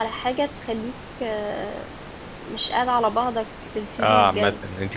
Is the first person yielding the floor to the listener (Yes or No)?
Yes